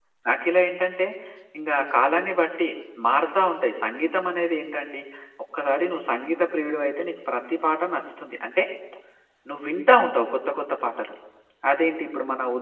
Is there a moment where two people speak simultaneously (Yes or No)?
No